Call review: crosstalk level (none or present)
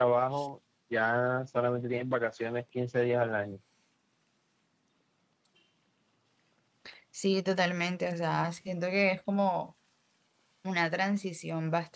none